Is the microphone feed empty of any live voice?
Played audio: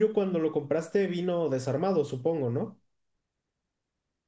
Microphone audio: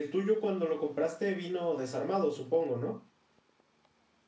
Yes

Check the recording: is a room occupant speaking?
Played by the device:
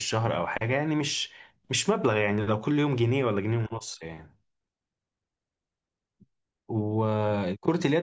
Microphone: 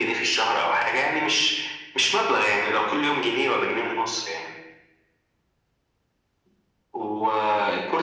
No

